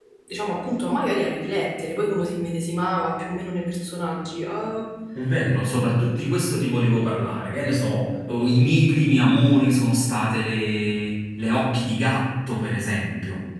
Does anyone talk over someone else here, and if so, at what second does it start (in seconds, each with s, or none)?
none